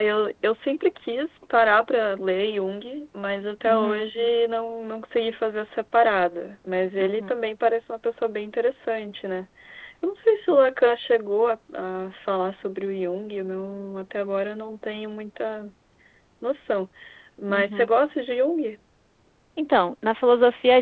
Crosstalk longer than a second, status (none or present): none